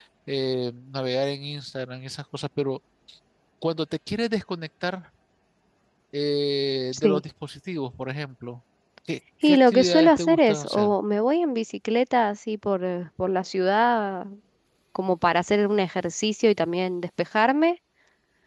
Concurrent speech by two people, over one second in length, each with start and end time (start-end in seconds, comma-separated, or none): 9.4-10.9